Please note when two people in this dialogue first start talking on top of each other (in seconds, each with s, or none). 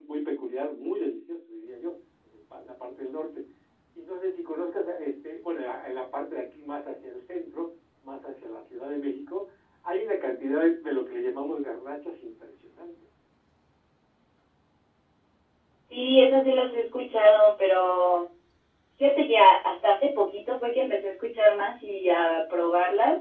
none